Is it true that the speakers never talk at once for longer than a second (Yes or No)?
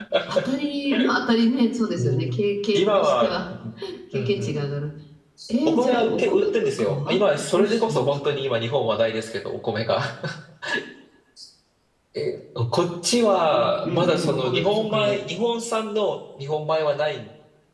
No